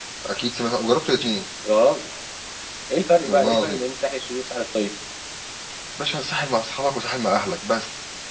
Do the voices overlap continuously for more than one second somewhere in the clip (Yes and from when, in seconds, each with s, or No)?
No